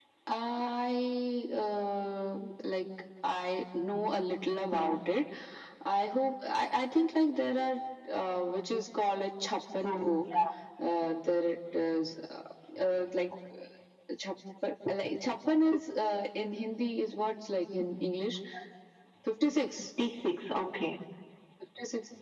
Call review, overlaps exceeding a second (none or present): none